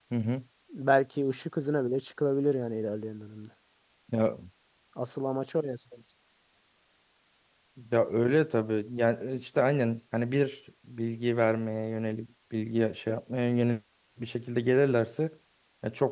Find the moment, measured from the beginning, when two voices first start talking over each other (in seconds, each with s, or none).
none